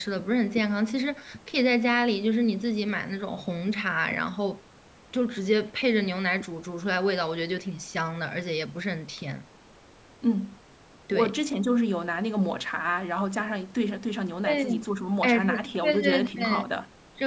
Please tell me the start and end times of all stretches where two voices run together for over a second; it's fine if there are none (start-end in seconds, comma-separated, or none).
15.2-16.6